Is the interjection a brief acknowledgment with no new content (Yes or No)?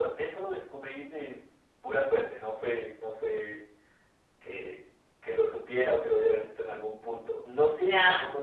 Yes